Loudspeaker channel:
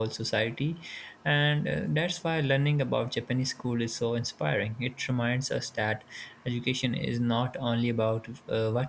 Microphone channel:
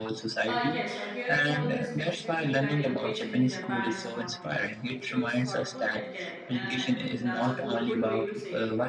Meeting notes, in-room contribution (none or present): present